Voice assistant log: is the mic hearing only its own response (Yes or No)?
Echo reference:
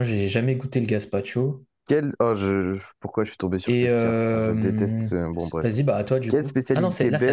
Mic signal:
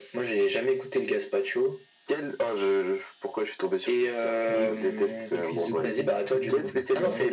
No